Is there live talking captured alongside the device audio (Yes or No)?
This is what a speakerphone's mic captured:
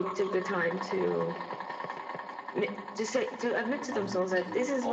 Yes